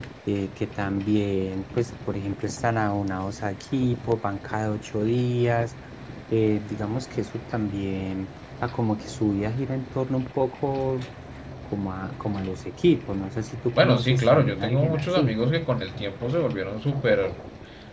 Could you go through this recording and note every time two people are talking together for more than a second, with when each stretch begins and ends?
13.8-15.4

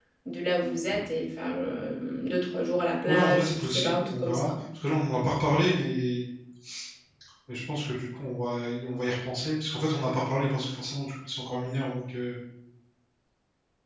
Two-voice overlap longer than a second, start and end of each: 3.1-4.5

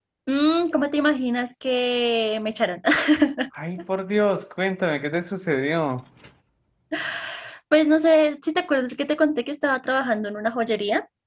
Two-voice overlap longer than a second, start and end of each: none

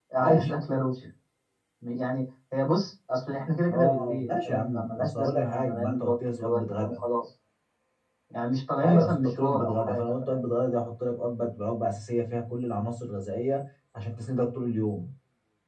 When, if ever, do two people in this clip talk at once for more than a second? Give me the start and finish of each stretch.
3.7-7.0, 8.8-10.4

